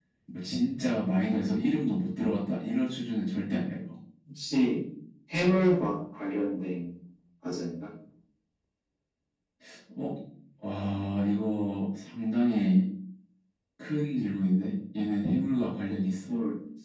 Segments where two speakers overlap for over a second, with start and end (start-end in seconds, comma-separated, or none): none